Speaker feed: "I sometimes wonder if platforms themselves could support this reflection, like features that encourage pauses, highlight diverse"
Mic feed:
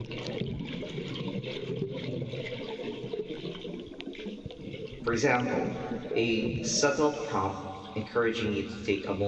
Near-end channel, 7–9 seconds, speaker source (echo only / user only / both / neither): user only